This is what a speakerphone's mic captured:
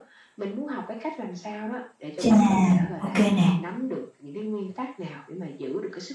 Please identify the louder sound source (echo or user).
user